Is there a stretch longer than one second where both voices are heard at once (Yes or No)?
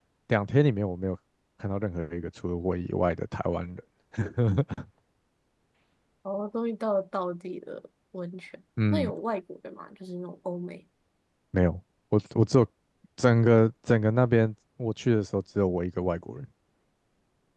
No